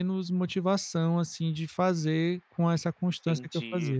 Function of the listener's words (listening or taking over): taking over